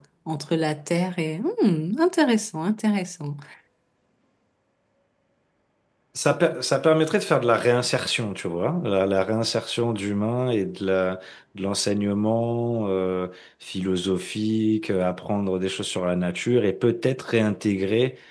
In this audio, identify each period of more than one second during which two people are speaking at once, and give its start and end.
none

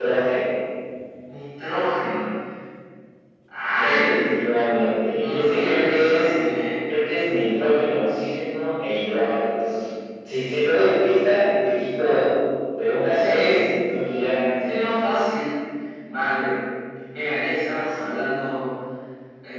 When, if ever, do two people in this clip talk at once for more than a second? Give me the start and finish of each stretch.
3.8-6.2

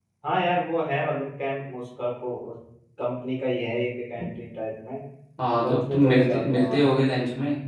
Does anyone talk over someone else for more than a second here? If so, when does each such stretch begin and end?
5.6-6.8

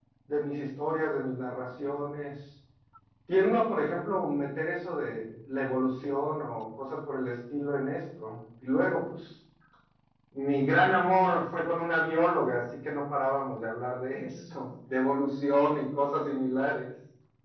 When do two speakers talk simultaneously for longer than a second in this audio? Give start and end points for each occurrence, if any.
none

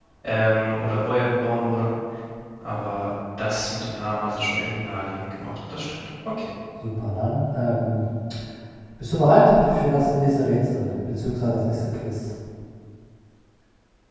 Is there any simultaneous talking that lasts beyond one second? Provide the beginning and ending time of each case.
none

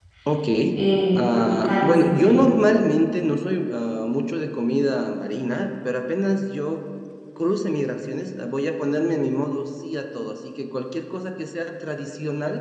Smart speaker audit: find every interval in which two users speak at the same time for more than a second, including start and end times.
1.1-2.4

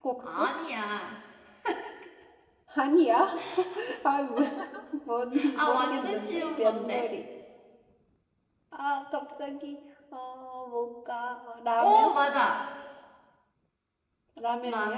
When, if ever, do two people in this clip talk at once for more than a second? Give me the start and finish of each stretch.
5.6-7.1

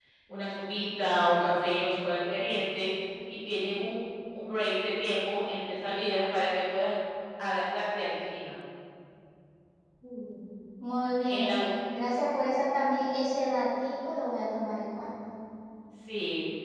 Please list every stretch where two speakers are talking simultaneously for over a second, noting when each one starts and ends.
none

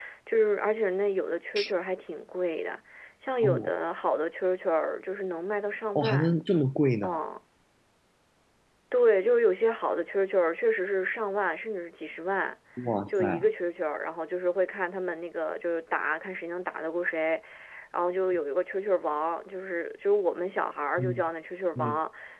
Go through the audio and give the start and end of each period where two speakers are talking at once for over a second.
none

